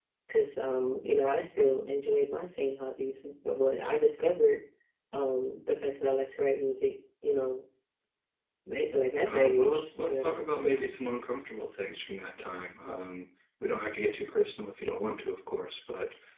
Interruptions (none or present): present